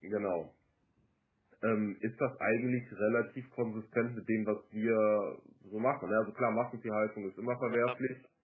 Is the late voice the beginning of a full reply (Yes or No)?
No